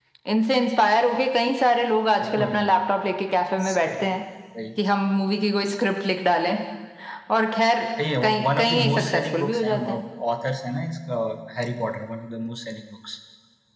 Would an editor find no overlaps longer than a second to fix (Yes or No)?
No